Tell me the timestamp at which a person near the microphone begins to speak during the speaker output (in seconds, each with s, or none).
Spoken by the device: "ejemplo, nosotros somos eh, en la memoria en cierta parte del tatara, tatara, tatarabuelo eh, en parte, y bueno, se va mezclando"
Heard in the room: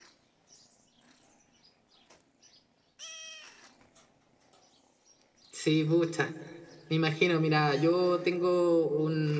5.5 s